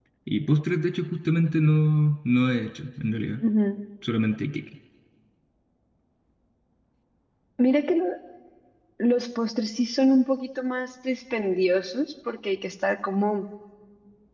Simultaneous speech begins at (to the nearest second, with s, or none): none